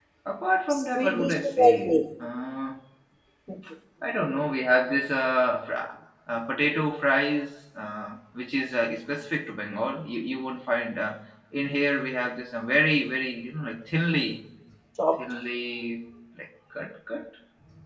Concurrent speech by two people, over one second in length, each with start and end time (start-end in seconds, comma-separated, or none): 0.7-2.0